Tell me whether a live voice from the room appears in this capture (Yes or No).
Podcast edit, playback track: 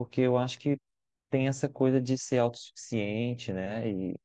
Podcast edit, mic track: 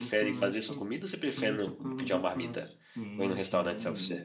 Yes